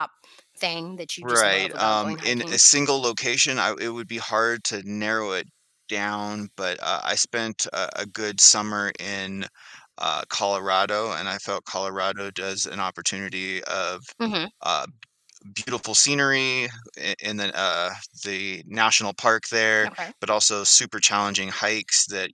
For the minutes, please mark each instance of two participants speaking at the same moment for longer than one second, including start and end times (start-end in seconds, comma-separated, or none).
1.2-2.6